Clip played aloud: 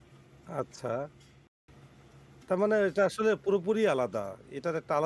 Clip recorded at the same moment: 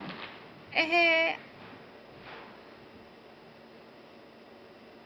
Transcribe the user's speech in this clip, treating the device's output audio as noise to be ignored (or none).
অ্যা হ্যাঁ।